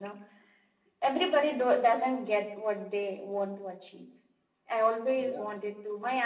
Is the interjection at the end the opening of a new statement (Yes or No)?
No